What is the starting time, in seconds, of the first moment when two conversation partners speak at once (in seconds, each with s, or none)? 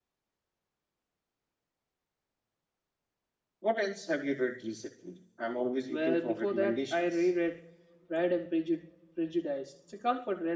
5.9 s